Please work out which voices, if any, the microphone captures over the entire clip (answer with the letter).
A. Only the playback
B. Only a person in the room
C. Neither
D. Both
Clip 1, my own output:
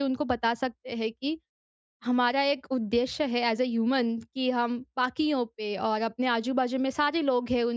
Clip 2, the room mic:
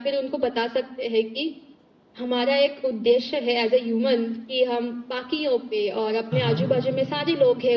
D